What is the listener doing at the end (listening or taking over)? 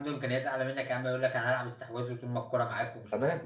taking over